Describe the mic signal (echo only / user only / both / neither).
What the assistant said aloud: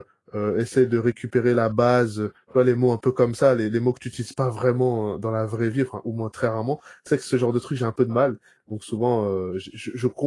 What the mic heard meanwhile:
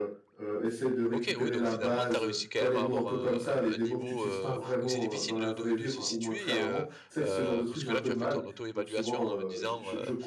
both